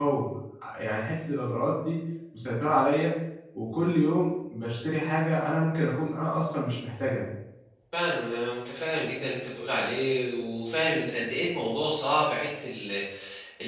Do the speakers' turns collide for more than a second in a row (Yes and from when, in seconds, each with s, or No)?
No